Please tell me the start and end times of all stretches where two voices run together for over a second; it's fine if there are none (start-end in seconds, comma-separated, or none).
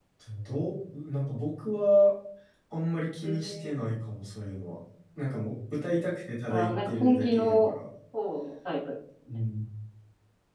6.5-7.7